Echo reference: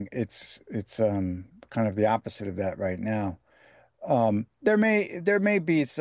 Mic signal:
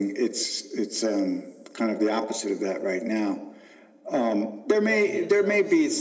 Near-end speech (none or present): present